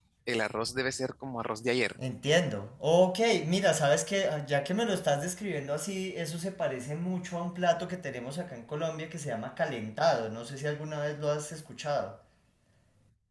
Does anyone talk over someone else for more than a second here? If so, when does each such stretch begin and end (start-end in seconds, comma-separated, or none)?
none